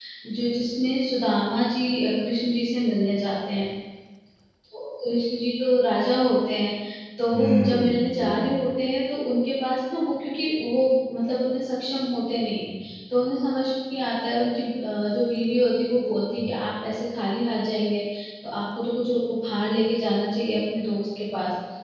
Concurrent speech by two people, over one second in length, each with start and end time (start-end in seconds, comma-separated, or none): 7.3-8.6